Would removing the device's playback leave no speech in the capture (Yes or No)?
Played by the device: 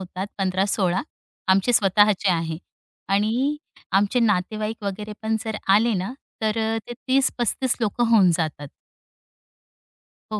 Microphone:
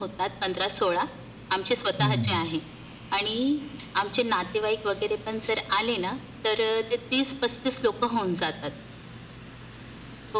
No